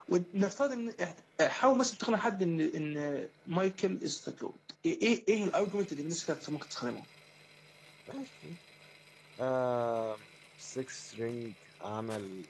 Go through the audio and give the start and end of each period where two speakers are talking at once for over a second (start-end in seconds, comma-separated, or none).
none